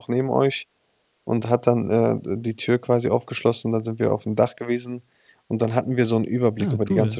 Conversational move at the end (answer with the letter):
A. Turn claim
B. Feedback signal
B